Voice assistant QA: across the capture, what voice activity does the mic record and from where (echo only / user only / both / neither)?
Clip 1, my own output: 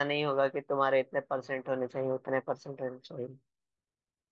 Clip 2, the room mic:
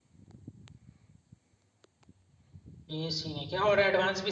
user only